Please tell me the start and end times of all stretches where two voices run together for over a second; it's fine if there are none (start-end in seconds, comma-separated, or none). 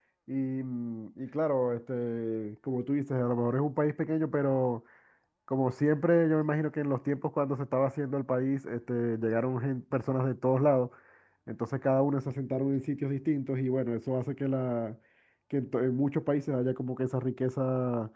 none